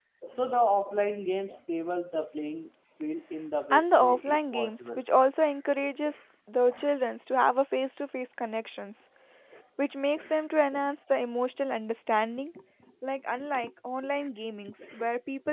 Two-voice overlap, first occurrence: 3.7 s

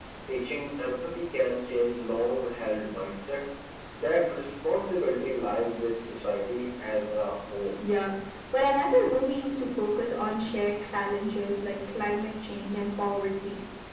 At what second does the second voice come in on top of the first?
none

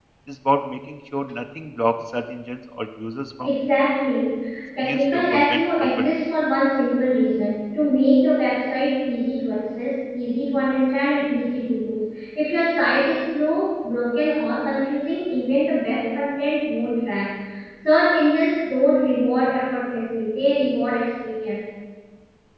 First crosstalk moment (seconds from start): 4.8 s

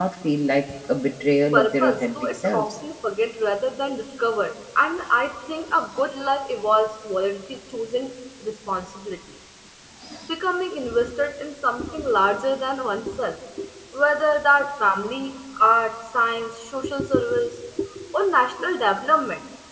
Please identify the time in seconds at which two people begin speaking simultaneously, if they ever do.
1.5 s

